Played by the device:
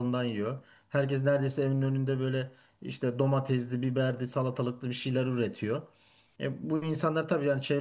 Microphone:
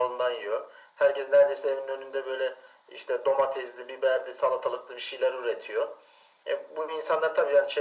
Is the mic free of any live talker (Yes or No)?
Yes